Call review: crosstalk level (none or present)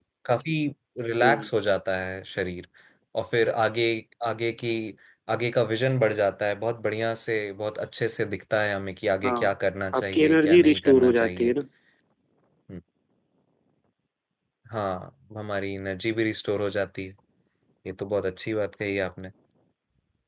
present